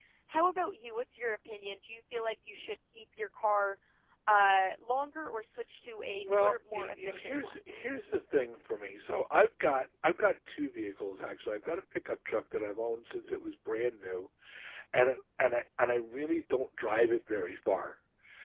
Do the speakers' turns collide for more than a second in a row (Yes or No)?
Yes